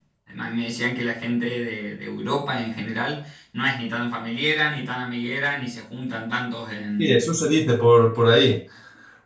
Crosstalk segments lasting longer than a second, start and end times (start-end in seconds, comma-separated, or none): none